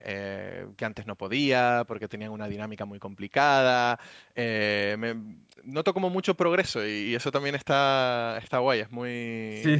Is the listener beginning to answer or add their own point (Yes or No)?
Yes